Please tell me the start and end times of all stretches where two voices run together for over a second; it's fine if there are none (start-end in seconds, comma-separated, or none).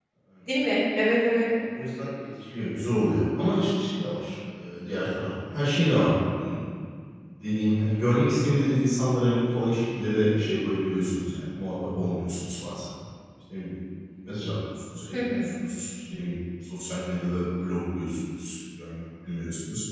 none